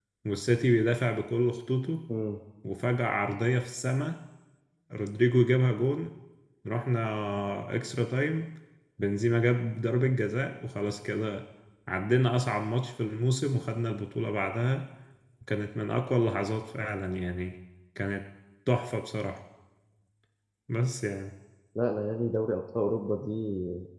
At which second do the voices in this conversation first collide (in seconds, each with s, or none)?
none